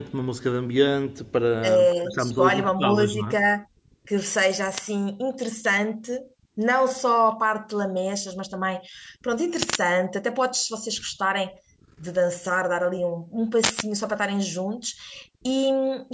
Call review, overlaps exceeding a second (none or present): present